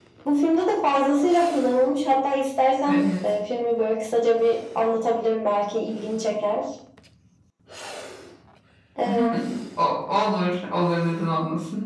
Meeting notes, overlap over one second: none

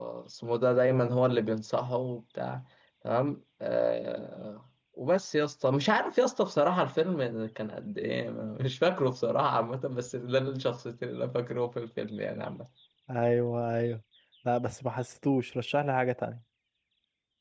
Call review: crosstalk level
none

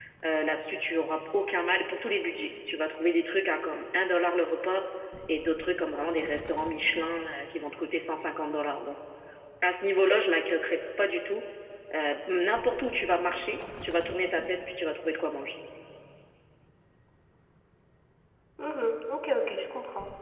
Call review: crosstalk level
none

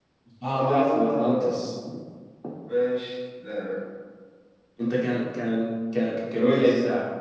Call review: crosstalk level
present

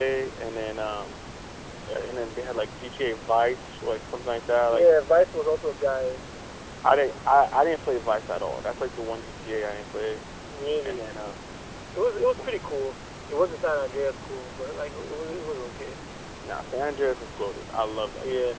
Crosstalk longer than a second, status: none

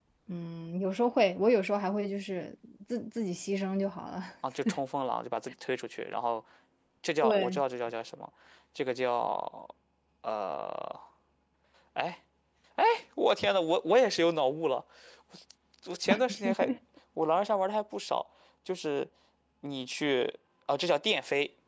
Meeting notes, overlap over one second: none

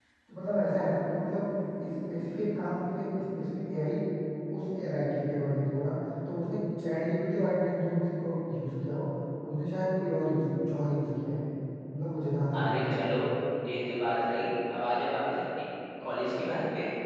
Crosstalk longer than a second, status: none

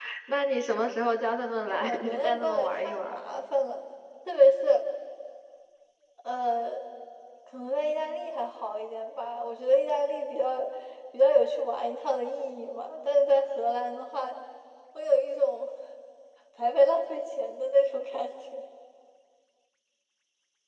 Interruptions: present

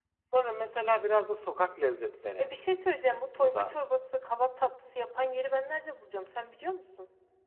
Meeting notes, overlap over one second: none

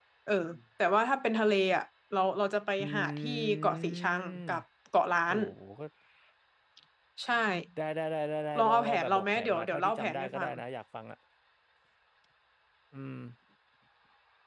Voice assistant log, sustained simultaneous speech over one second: present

